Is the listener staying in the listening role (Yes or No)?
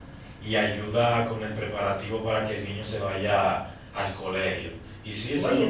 No